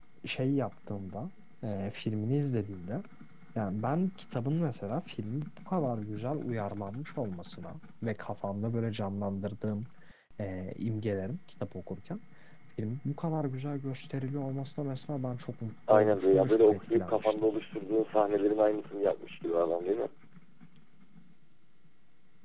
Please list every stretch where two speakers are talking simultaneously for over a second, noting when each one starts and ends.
15.9-17.3

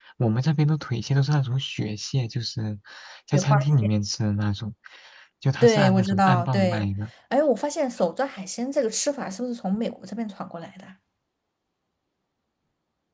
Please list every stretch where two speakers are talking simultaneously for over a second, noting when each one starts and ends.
5.6-6.9

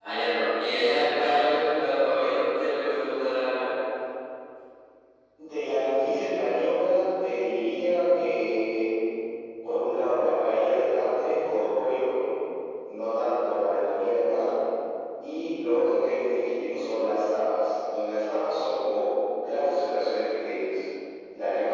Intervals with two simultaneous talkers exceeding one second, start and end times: none

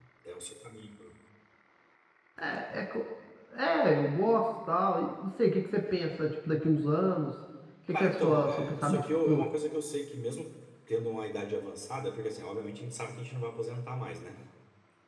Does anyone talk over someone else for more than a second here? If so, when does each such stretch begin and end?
7.9-9.4

